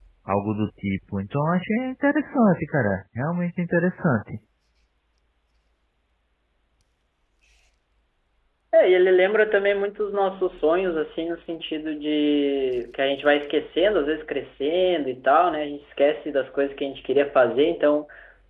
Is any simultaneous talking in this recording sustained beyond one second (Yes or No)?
No